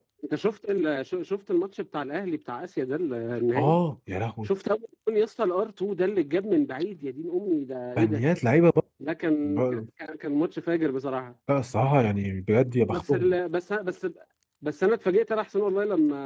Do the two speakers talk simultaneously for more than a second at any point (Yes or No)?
No